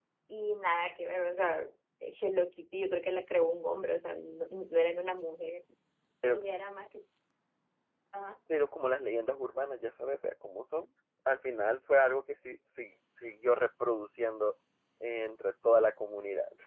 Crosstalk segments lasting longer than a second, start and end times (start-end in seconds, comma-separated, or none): none